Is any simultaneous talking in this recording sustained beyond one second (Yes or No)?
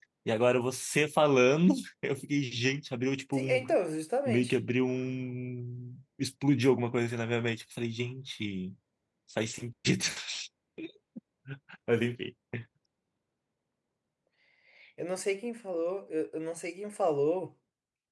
No